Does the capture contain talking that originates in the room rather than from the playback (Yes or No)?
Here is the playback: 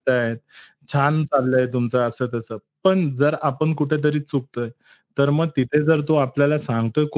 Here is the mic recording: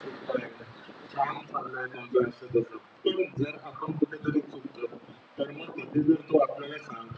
No